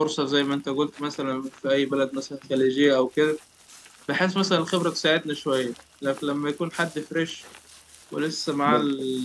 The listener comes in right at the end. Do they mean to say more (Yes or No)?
Yes